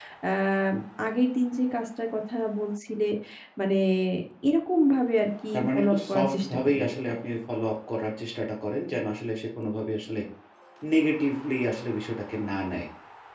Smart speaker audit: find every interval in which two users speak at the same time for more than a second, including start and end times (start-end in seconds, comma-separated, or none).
5.5-7.1